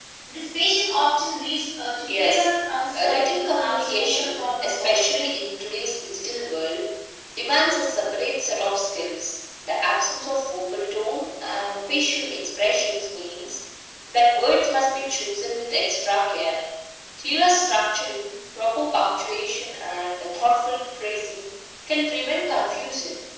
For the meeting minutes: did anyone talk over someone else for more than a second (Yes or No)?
Yes